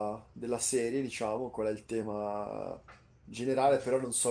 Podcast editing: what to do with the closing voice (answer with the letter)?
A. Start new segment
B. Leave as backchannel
B